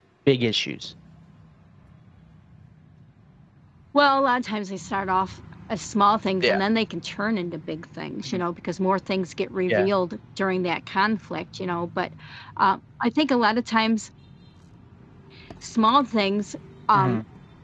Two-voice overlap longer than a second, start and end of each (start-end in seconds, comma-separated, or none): none